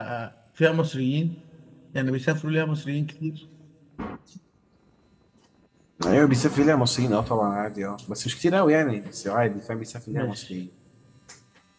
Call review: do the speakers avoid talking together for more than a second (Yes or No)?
Yes